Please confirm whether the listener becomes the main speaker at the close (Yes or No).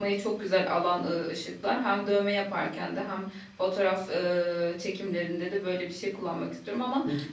No